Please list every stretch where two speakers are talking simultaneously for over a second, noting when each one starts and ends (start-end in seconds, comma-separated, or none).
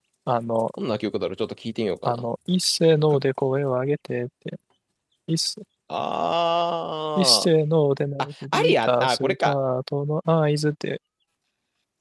8.2-9.5